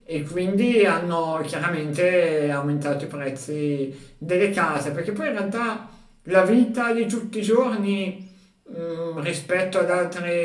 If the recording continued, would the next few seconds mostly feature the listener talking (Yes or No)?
No